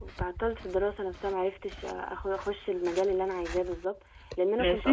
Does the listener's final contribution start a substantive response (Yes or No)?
No